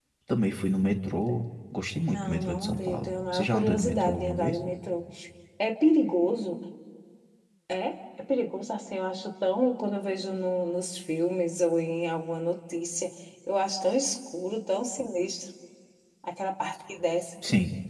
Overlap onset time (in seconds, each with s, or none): 2.1 s